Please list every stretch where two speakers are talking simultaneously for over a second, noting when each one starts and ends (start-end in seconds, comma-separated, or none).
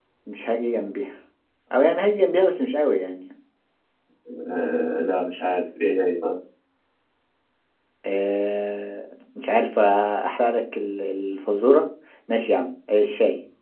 none